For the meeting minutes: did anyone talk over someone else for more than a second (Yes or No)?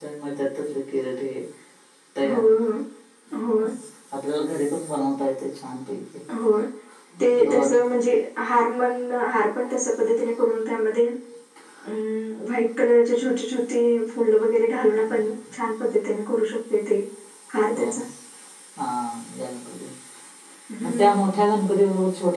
No